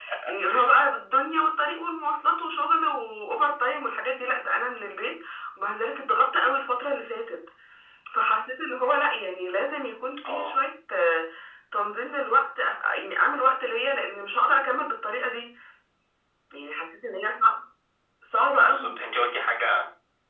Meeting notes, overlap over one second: none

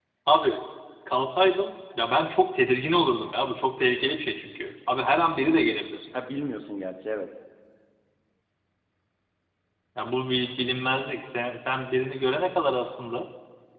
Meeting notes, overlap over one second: none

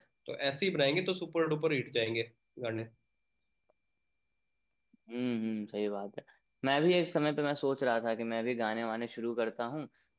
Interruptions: none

